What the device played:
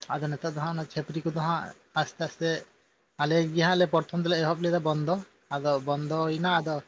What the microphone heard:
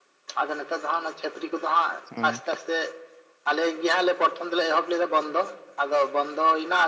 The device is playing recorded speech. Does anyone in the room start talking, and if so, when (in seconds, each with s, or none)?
2.1 s